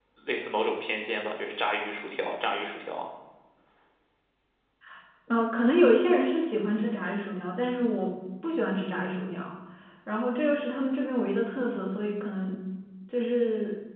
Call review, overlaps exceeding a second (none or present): none